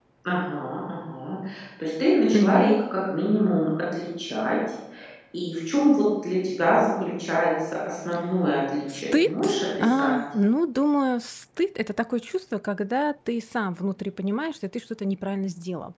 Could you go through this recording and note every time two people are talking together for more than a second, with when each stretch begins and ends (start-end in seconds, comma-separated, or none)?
8.9-10.1